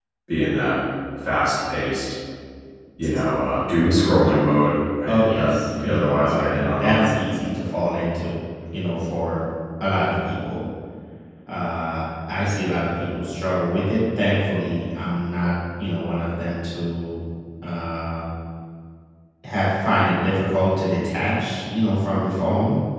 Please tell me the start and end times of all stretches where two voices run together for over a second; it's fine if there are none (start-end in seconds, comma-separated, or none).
5.1-7.1